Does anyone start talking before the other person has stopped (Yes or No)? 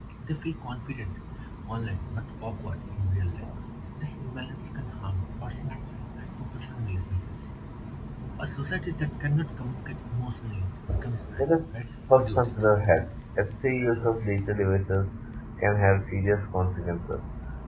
Yes